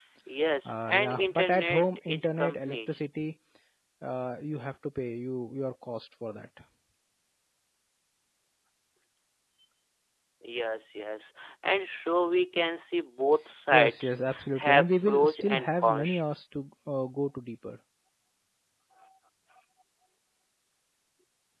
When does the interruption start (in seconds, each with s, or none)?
0.9 s